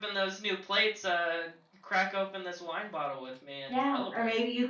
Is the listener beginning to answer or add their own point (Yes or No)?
Yes